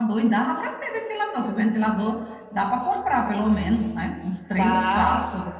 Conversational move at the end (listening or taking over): taking over